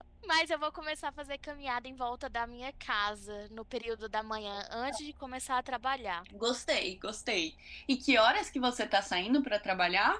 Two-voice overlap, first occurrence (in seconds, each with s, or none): none